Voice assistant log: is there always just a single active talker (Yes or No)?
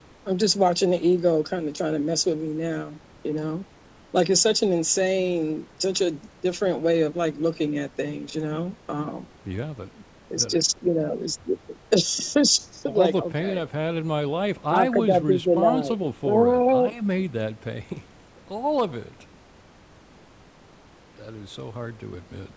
No